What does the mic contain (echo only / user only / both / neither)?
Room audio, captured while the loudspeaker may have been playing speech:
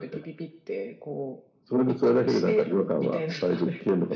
echo only